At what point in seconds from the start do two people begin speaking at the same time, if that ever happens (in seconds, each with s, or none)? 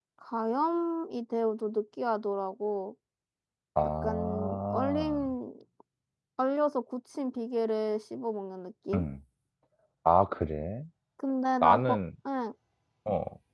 4.0 s